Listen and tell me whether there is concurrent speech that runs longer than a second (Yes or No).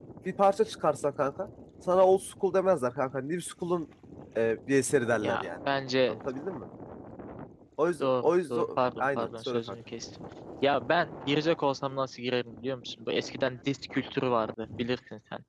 Yes